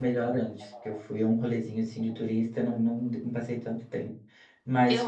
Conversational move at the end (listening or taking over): taking over